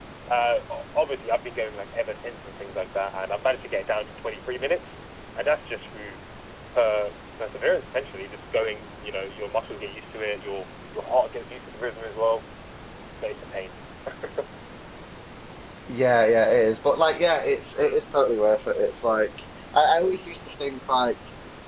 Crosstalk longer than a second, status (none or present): none